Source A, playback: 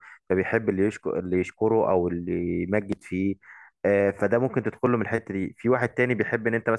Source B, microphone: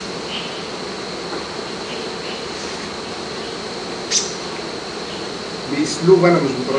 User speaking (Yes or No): Yes